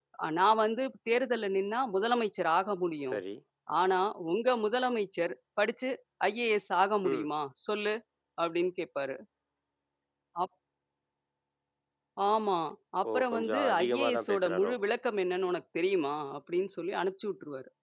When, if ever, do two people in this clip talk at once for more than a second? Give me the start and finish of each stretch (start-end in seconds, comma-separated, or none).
13.1-14.7